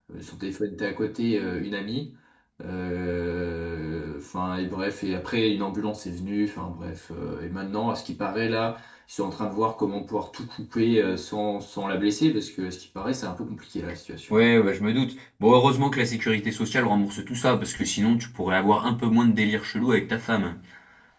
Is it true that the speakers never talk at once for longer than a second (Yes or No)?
Yes